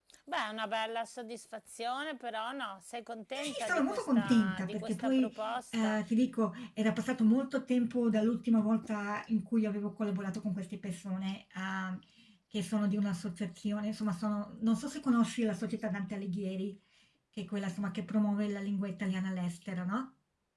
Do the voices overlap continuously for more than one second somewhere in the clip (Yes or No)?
Yes